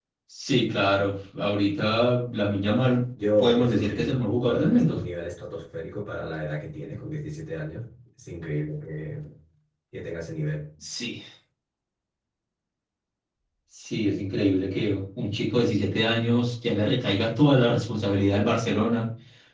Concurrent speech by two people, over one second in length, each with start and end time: 3.4-5.0

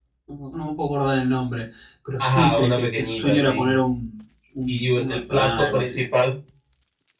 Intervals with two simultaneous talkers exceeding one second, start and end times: 2.2-3.8, 4.7-6.0

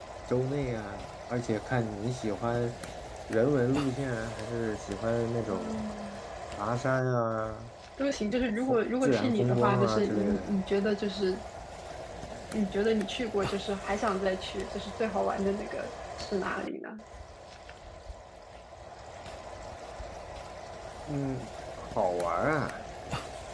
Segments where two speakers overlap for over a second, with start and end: 8.6-10.5

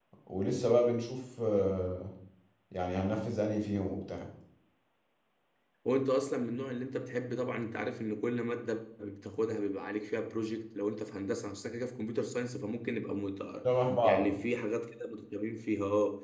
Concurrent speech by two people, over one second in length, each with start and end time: none

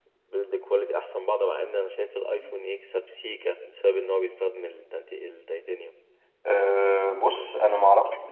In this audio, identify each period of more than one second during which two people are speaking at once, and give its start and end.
none

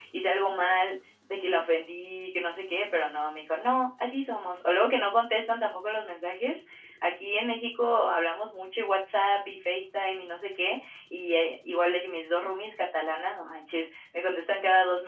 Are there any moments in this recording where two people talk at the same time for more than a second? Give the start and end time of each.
none

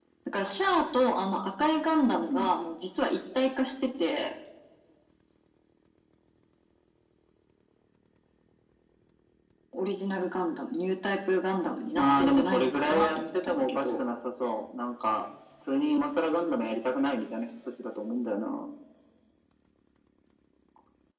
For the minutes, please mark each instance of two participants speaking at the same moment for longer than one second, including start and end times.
11.9-14.1

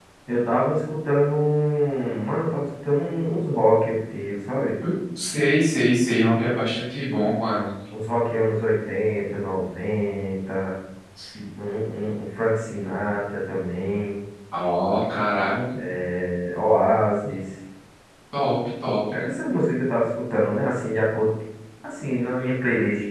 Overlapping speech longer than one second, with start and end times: none

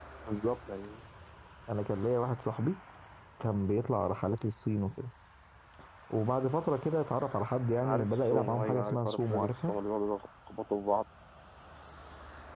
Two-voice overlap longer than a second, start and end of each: 7.8-9.8

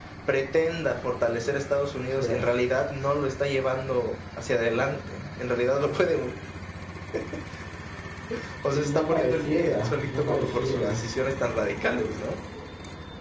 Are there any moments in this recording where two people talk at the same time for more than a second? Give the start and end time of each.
8.7-11.0

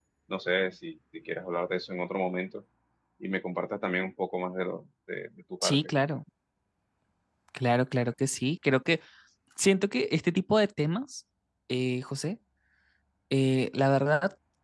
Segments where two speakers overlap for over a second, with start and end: none

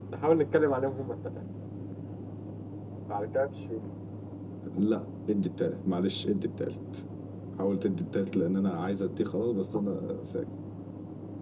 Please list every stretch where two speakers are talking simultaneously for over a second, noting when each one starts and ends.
none

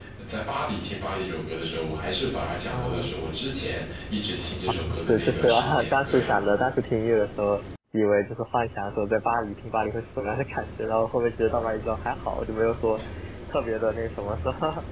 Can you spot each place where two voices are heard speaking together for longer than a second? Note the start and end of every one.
4.9-6.3

